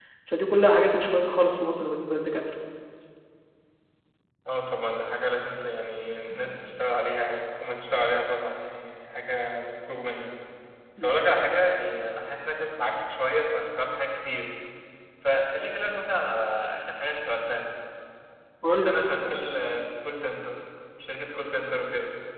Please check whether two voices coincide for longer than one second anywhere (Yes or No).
No